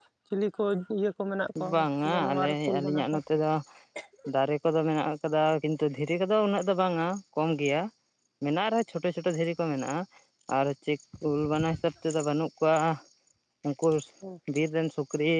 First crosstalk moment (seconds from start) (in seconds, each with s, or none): 1.7 s